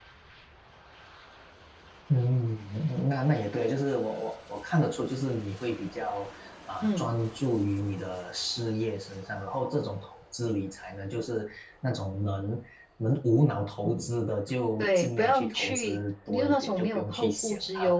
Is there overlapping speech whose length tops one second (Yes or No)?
Yes